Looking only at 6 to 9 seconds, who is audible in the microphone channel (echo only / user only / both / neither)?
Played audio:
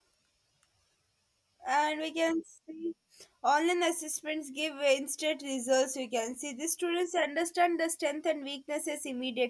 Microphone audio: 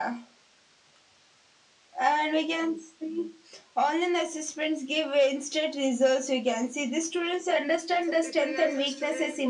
both